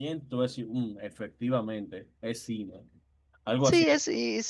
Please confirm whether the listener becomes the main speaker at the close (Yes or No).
Yes